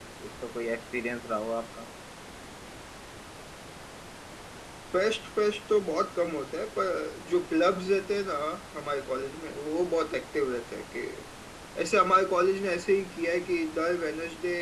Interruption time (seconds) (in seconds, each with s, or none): none